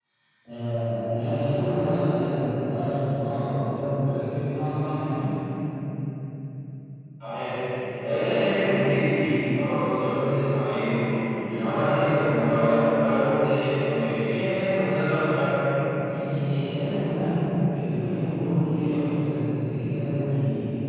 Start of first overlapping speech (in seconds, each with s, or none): none